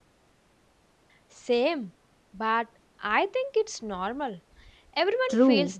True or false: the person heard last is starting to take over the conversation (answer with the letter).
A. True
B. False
A